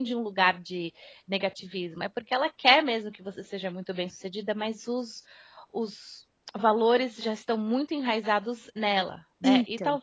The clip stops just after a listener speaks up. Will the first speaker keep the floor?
Yes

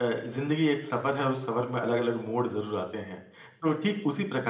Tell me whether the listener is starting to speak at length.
No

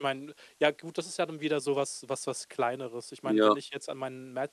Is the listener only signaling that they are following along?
Yes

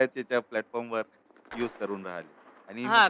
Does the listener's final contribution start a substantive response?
Yes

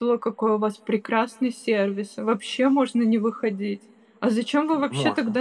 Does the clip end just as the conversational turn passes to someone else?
No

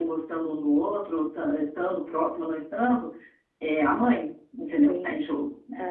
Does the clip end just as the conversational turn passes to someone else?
Yes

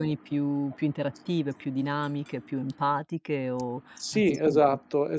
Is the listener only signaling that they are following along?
No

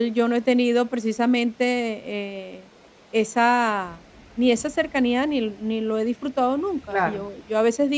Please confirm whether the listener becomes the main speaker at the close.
No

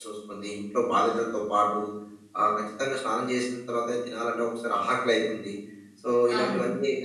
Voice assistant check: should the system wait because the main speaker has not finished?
Yes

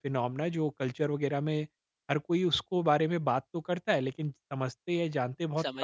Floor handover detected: Yes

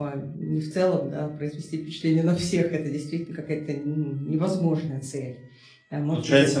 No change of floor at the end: No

